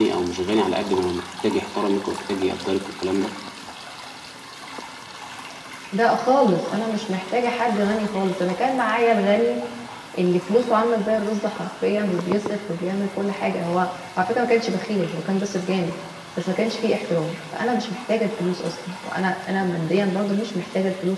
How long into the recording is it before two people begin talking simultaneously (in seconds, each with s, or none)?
none